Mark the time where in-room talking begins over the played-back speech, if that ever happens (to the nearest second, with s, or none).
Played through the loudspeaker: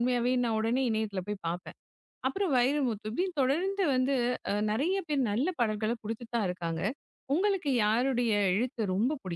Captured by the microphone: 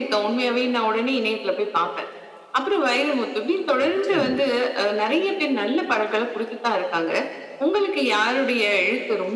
4 s